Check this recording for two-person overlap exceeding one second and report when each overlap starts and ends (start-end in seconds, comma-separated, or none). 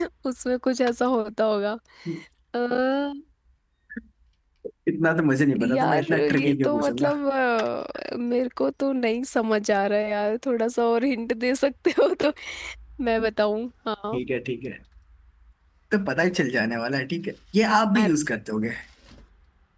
5.6-7.1